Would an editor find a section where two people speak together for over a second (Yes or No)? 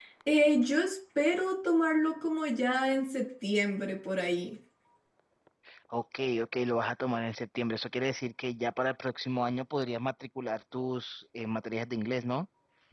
No